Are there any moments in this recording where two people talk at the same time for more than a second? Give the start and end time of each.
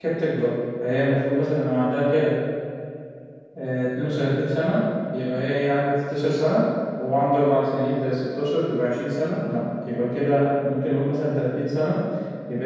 none

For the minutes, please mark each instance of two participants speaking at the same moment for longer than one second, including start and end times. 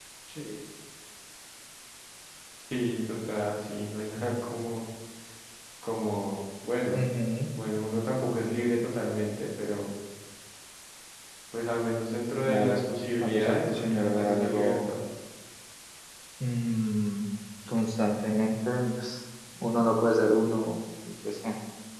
13.2-14.8

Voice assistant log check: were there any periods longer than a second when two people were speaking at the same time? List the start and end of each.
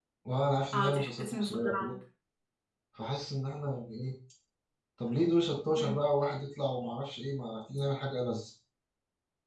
0.7-2.0

